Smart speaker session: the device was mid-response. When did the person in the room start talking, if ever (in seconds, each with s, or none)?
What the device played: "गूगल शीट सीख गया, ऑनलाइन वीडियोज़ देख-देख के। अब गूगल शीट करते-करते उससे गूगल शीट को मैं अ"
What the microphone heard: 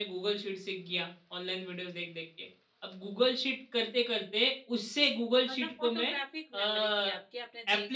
5.4 s